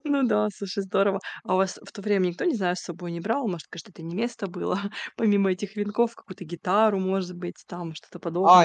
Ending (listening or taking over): taking over